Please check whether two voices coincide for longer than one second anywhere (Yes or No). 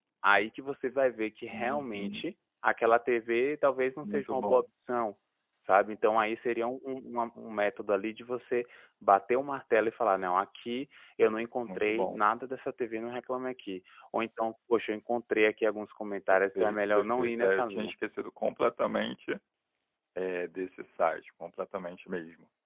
Yes